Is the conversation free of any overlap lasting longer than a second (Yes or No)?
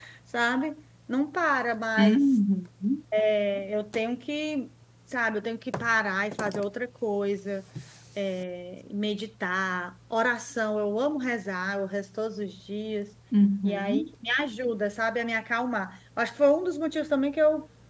Yes